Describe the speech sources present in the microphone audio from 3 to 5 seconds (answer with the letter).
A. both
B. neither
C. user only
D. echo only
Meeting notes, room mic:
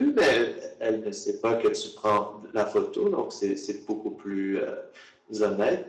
D